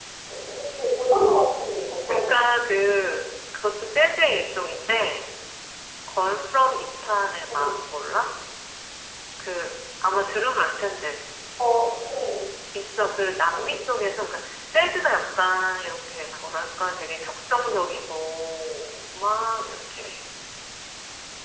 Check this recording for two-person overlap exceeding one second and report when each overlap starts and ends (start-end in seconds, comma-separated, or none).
none